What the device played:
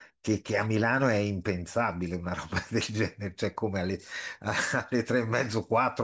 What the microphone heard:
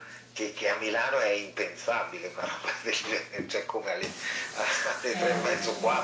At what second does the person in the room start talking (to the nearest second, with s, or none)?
5 s